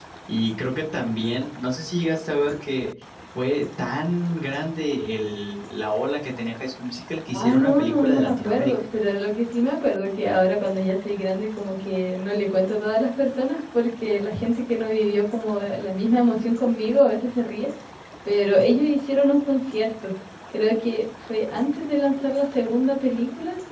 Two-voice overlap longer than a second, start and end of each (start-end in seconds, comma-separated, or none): 7.3-8.7